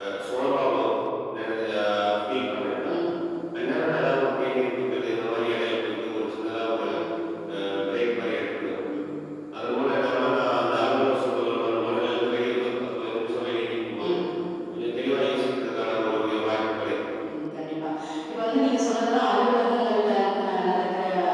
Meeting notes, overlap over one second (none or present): none